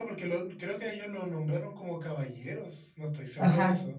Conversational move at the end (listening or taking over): taking over